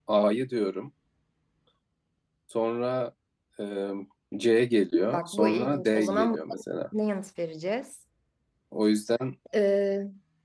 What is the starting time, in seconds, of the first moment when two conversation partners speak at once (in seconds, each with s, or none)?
5.1 s